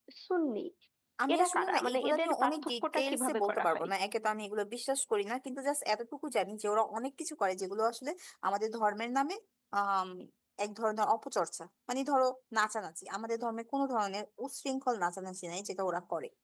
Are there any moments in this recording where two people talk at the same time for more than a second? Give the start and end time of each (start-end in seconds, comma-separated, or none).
1.3-3.9